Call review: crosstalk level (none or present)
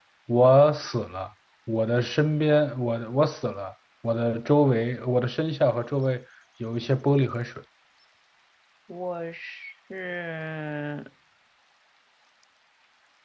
none